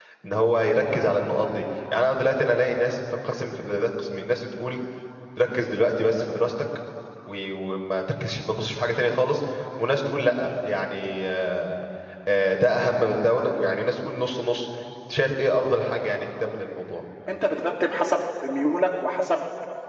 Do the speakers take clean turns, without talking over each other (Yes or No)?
Yes